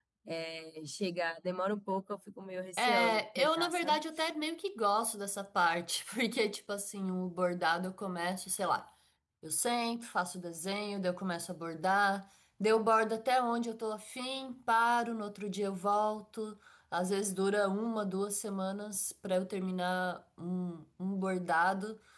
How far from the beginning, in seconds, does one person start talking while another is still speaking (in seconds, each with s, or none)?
2.8 s